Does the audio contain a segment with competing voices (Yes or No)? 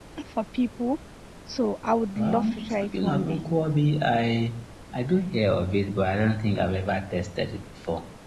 Yes